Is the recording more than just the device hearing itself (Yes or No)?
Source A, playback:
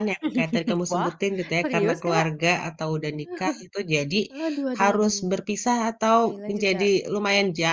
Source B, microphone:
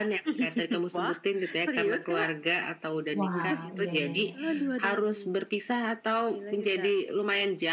Yes